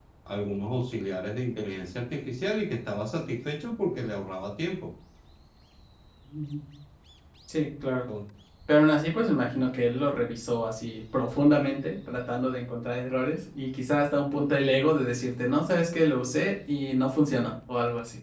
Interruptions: none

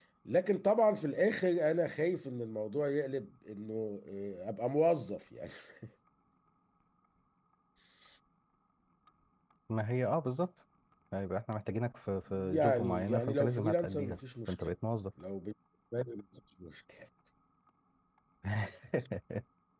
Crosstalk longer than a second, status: present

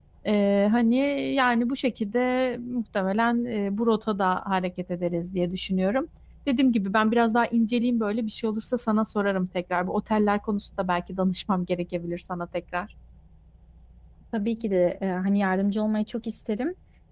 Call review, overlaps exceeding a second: none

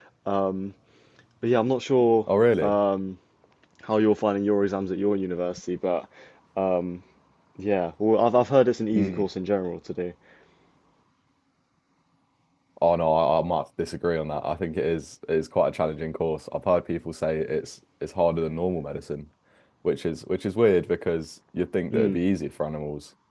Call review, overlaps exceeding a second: none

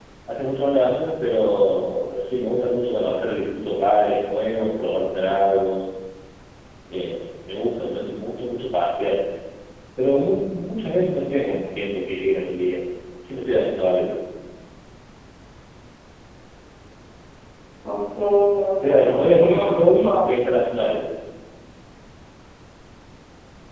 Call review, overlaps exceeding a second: present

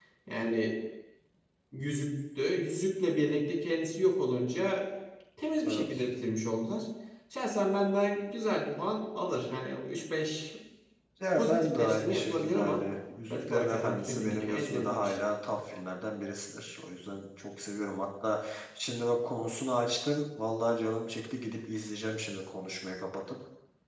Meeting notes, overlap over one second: present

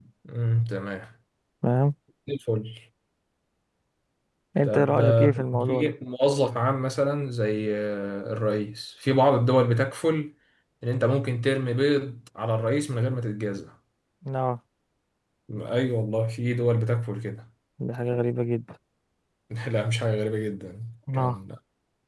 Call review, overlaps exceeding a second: present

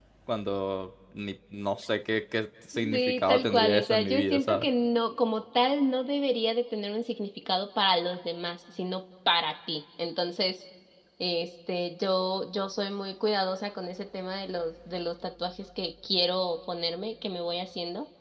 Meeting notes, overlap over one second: present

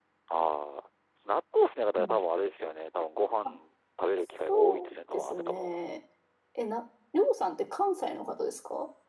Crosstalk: present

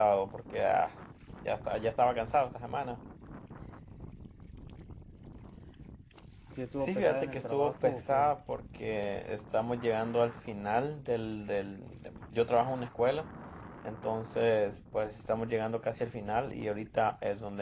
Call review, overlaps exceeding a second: present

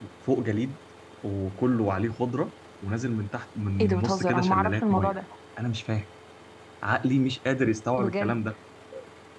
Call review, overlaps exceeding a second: present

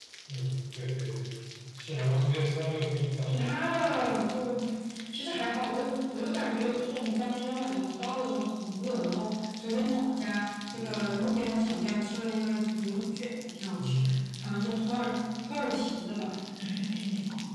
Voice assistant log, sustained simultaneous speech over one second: none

